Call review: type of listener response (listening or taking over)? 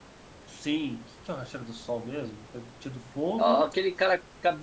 taking over